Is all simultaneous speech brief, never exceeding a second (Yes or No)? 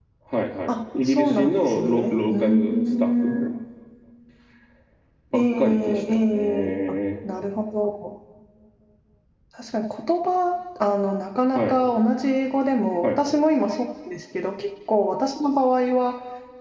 No